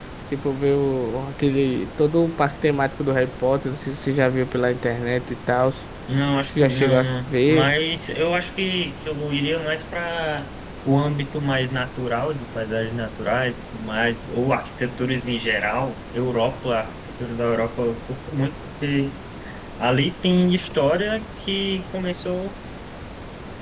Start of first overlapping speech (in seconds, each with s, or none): 6.5 s